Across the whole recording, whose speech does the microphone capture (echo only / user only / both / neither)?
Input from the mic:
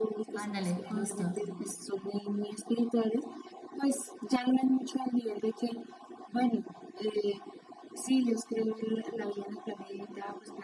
both